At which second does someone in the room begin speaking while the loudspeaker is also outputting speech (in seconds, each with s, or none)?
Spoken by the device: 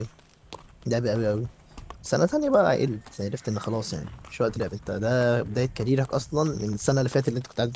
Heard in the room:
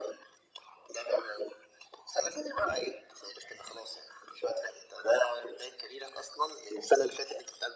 none